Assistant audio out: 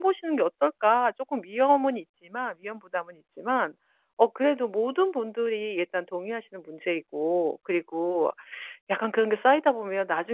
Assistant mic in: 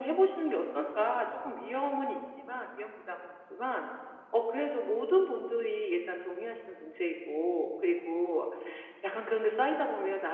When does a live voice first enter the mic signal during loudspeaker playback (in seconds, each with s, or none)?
none